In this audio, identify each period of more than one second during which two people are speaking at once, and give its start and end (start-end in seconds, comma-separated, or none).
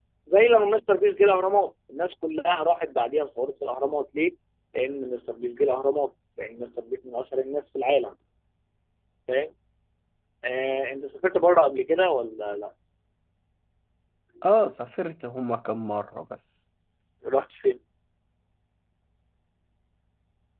none